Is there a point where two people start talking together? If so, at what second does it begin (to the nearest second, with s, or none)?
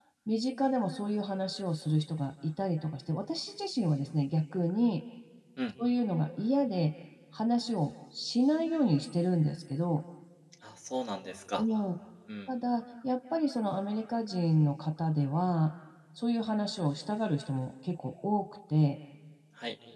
none